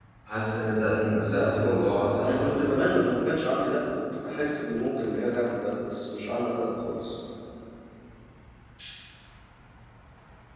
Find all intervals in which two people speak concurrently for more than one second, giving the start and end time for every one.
1.3-2.6

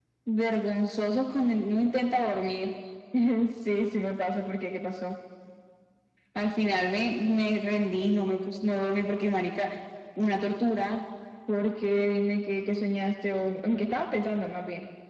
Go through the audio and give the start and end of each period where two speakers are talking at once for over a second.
none

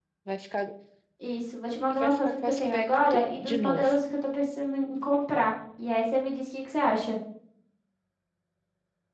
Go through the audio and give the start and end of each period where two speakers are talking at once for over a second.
2.0-4.0

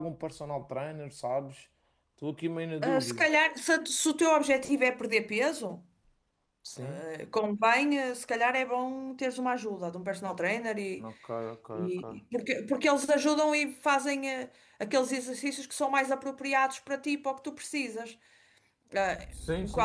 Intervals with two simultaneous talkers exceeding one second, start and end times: none

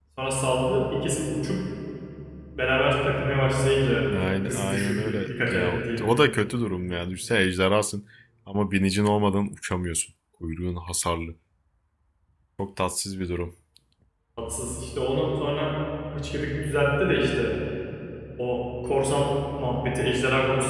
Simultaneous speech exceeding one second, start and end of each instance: 4.1-6.1

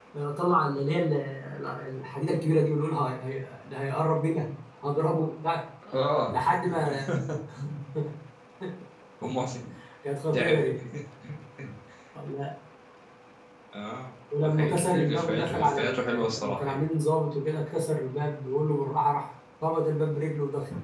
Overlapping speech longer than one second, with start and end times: 14.4-16.8

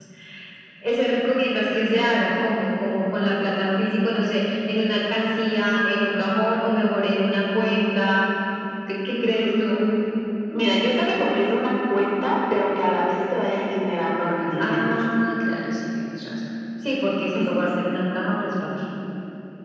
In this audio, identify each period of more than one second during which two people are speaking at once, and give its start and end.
none

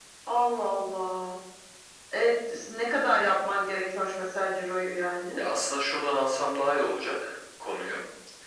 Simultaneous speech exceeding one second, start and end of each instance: none

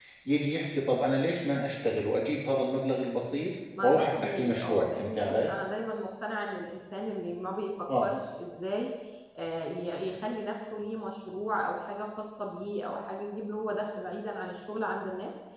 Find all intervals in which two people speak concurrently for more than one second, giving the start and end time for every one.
3.8-5.5

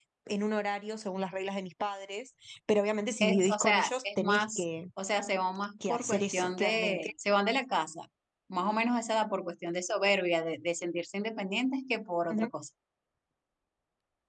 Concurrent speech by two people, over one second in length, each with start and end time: 3.2-4.6, 5.9-7.1

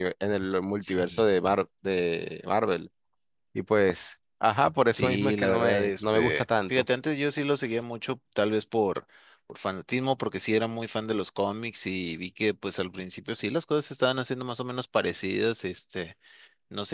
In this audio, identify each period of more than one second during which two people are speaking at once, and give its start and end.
4.9-6.8

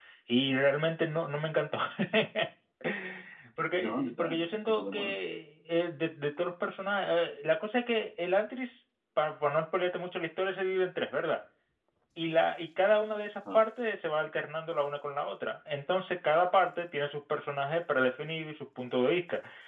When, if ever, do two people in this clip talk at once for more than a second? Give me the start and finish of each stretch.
3.8-5.2

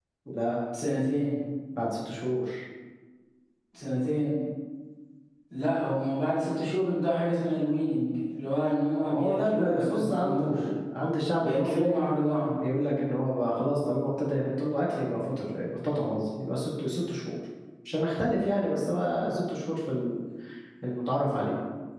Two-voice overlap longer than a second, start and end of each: 9.1-10.6

